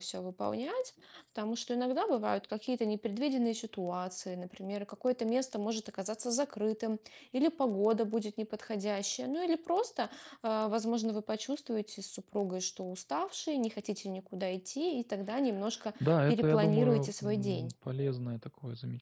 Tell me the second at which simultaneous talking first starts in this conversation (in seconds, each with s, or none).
16.0 s